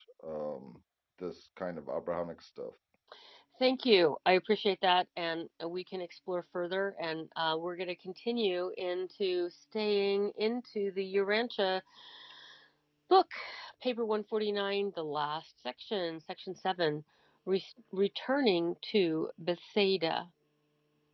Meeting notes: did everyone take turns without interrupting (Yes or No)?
Yes